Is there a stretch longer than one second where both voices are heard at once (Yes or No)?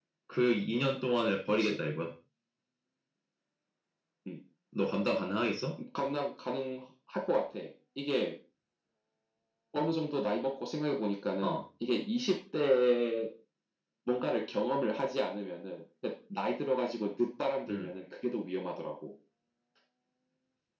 No